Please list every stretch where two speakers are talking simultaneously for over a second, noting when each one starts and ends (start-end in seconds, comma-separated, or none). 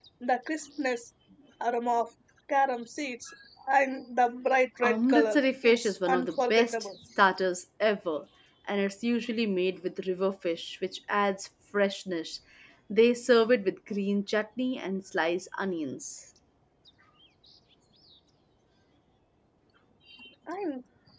4.8-6.7